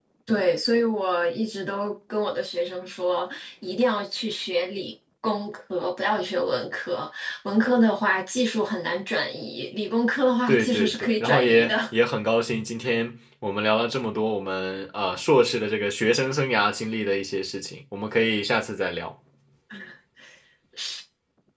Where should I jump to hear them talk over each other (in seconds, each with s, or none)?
10.5 s